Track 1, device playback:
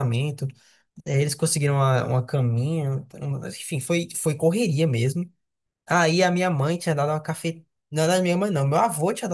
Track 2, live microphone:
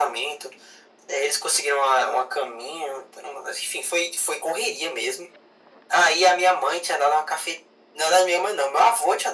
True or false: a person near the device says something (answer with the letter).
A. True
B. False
B